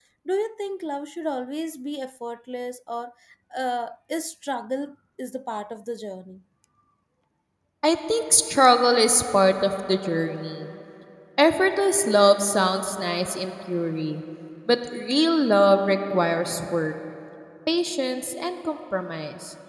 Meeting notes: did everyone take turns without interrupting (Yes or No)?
Yes